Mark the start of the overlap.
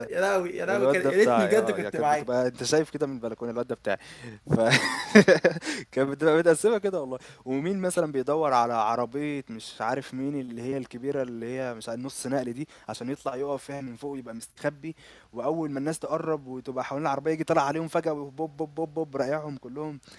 0.7 s

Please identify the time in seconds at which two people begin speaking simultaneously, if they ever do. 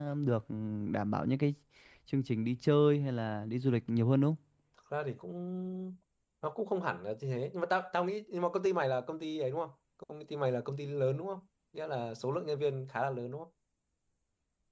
none

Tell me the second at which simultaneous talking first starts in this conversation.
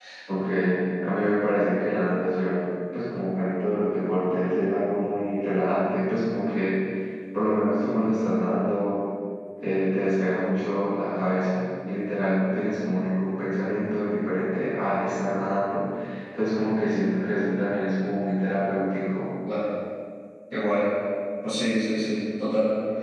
none

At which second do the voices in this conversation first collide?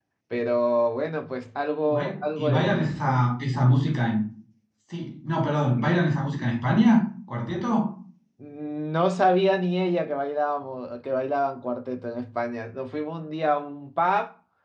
1.9 s

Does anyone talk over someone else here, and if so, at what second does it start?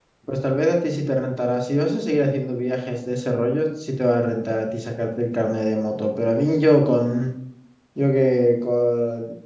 none

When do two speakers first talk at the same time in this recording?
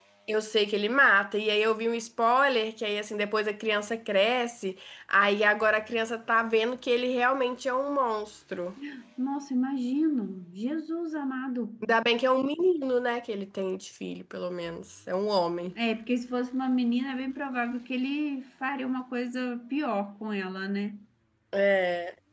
none

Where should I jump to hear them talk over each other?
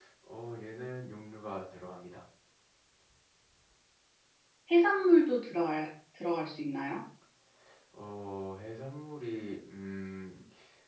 none

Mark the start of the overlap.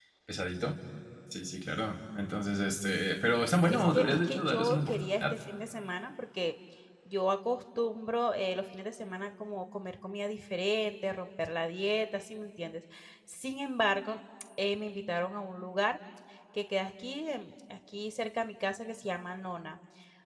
3.7 s

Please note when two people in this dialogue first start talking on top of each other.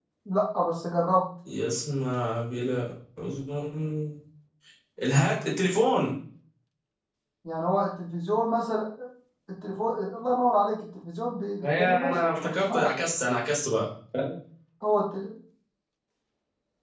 11.6 s

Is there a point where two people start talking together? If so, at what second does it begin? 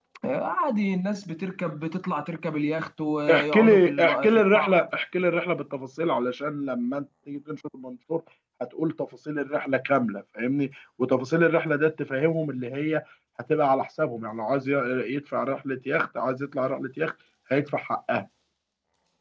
3.3 s

